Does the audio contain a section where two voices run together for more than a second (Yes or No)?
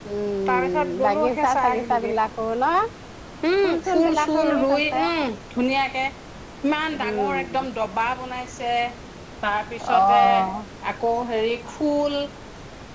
Yes